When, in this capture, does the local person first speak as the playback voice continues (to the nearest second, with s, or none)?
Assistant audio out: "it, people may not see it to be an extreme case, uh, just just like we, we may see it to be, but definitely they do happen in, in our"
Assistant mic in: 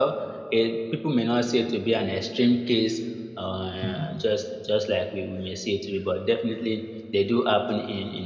4 s